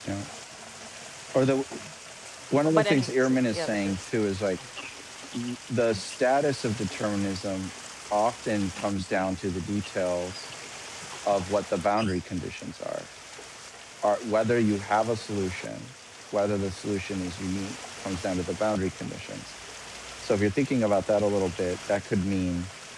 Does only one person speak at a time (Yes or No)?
No